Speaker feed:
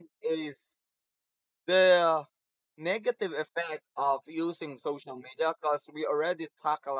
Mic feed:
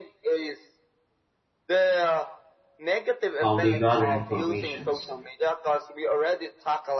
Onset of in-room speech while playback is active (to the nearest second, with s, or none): 3 s